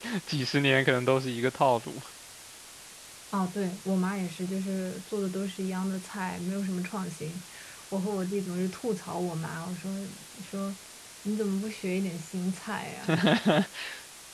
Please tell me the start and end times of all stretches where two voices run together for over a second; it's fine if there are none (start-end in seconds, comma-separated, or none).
none